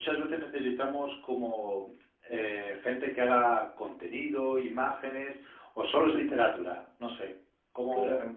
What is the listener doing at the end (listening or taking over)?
taking over